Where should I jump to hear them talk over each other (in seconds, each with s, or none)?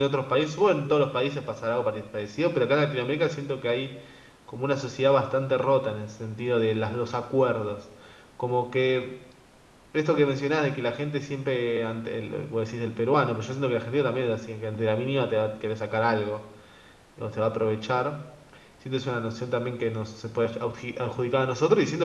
none